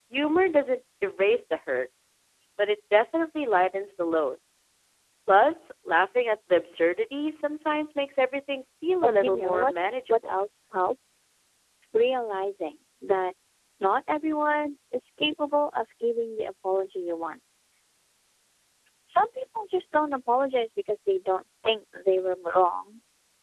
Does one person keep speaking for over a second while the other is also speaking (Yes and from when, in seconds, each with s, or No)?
Yes, from 9.0 s